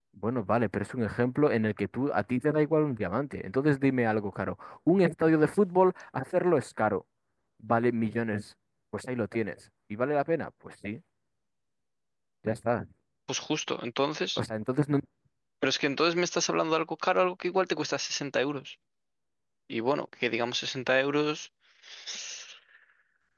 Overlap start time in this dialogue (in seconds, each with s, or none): none